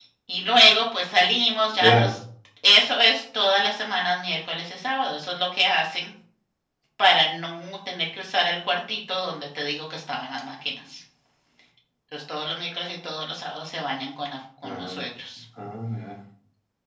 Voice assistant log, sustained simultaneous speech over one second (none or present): none